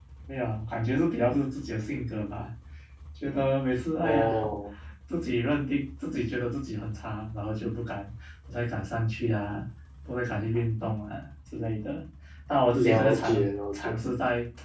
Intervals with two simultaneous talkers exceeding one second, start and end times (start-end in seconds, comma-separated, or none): 12.8-13.9